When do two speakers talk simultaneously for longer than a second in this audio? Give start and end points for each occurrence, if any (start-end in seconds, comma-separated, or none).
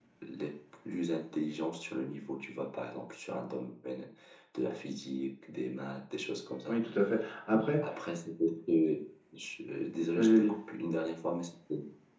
none